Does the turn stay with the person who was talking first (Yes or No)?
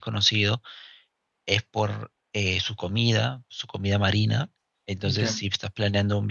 Yes